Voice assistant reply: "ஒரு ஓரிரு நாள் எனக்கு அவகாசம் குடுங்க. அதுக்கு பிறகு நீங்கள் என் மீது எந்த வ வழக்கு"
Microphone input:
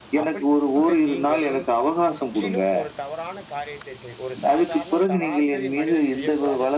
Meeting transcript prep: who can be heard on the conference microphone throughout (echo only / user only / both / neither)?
both